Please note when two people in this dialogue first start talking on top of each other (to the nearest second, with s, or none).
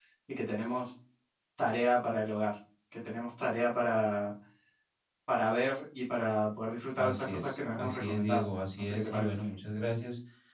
7 s